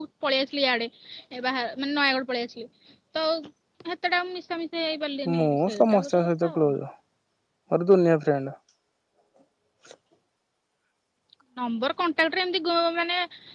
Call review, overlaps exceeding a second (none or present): present